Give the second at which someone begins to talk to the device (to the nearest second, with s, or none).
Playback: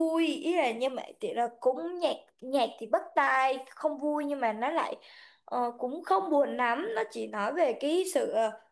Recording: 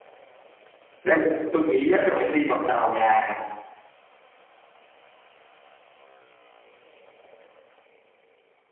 1 s